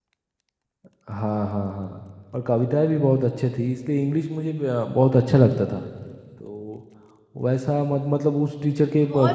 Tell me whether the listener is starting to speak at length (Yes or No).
Yes